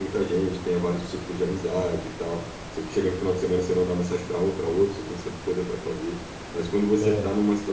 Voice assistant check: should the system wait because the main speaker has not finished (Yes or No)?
Yes